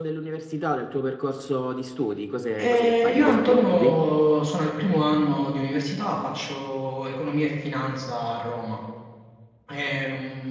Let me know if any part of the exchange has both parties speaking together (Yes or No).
Yes